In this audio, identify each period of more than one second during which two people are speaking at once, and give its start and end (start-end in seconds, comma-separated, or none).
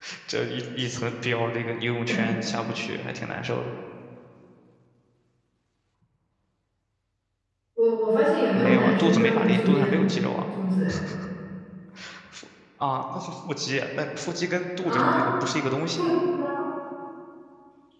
8.5-10.0